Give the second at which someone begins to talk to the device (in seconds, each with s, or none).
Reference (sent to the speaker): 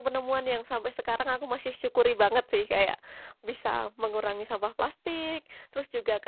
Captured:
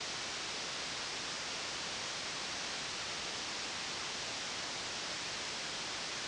none